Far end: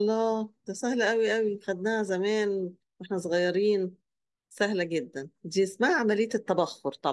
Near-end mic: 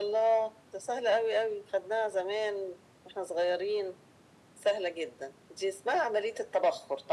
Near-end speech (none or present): none